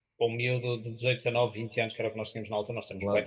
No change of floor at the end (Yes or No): Yes